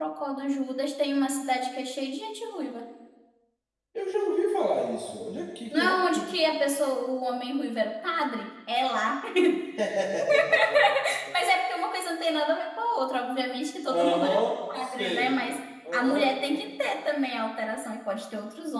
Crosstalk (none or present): present